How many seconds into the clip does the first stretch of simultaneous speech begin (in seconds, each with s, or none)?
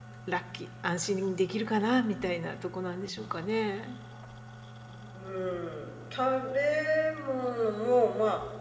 none